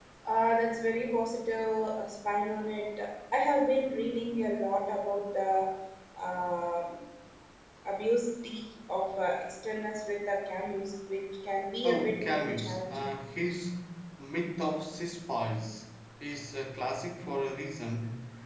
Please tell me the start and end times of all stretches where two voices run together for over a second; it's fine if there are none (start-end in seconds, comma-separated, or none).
11.8-13.1